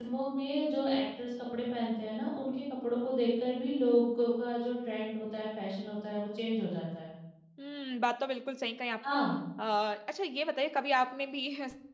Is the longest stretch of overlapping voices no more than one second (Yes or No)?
Yes